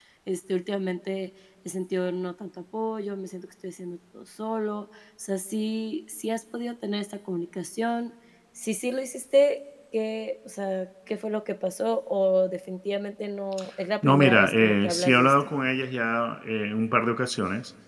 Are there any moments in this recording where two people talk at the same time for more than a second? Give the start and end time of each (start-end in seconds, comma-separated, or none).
14.0-15.3